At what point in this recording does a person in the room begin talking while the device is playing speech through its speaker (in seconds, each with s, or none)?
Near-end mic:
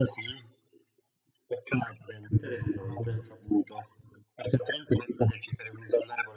2.3 s